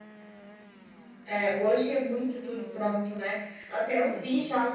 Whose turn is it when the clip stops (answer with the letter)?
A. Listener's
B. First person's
B